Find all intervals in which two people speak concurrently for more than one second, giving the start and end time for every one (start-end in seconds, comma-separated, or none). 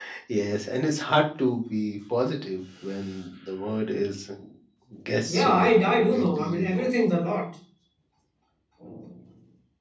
5.3-6.9